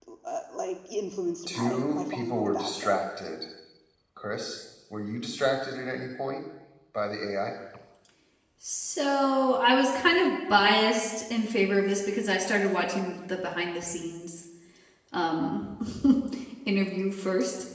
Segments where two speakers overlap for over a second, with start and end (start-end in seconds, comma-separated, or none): 1.5-3.0